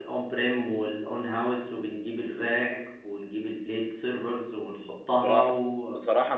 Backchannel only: No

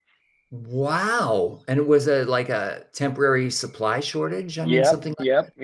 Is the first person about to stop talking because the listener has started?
Yes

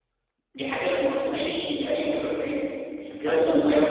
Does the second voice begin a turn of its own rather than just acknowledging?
Yes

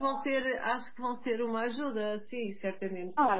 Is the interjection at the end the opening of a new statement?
Yes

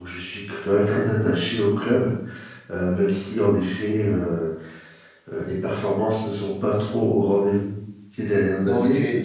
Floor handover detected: Yes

